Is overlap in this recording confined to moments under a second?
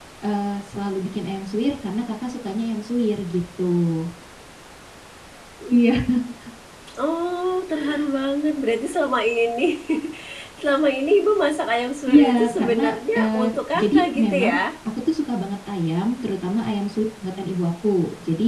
No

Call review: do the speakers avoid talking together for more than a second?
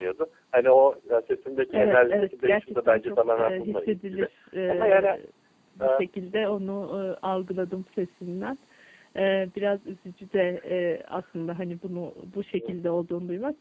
No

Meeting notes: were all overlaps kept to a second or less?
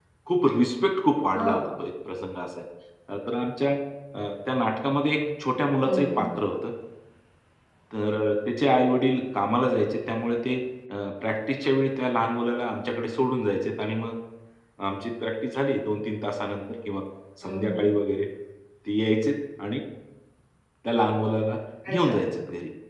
Yes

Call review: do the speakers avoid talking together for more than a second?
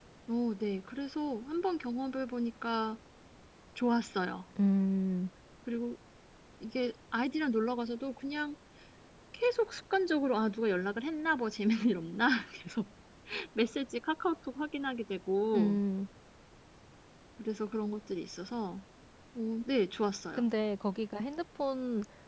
Yes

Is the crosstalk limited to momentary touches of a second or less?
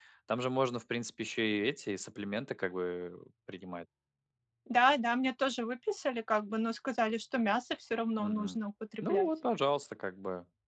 Yes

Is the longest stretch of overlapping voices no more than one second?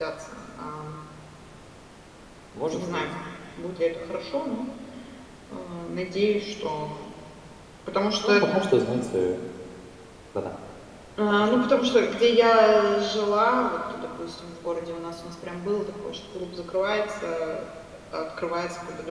Yes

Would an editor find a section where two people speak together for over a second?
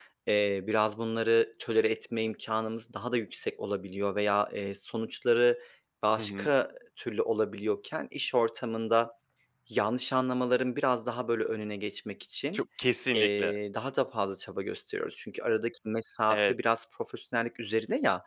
No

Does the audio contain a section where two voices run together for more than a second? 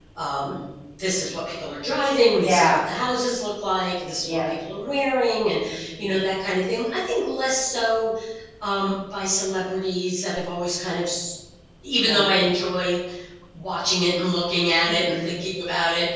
No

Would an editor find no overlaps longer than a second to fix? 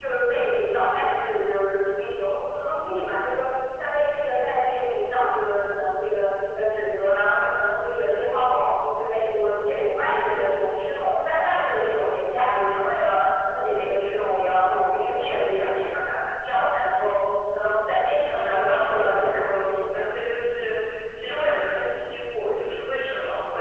No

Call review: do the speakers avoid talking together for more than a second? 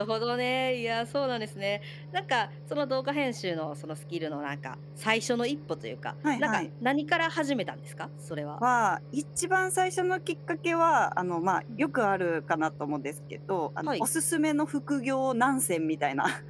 Yes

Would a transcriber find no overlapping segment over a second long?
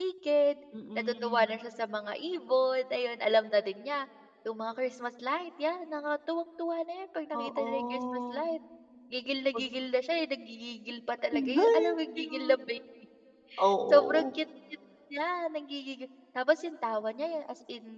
No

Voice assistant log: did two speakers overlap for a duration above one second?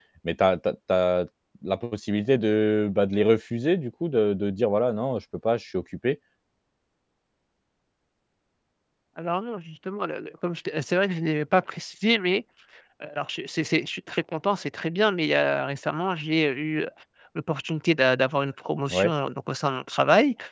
No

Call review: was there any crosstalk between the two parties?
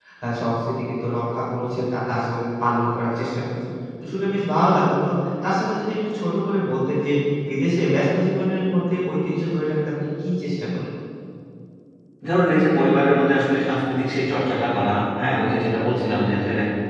No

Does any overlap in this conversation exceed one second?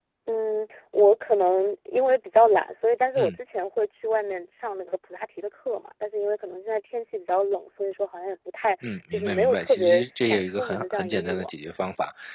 Yes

